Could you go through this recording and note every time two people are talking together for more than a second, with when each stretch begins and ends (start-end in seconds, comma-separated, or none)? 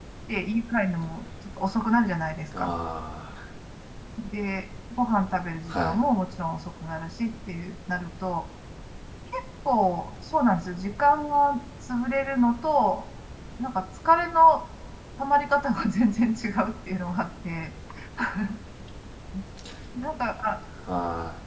none